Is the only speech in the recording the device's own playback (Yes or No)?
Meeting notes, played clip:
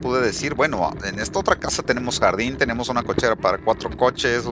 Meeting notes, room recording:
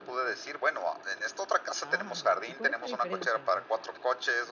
No